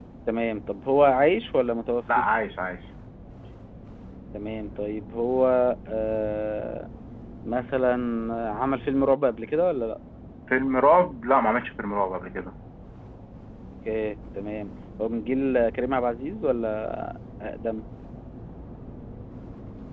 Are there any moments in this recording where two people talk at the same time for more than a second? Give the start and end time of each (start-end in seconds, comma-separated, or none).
none